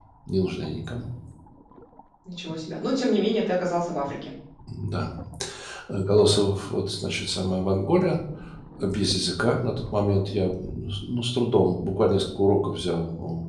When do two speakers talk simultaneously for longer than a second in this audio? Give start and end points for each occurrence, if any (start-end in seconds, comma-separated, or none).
none